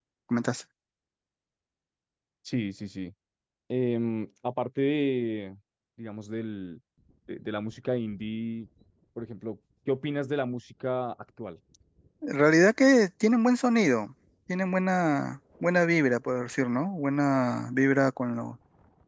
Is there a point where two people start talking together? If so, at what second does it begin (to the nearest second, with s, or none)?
none